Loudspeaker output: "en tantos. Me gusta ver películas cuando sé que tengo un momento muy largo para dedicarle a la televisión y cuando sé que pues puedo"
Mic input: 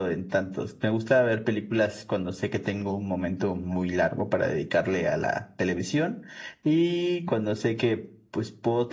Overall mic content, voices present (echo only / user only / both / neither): echo only